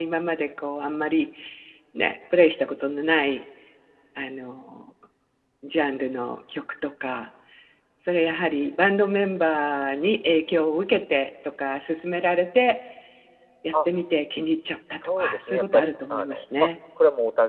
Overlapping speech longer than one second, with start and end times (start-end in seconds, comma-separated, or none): 15.0-16.7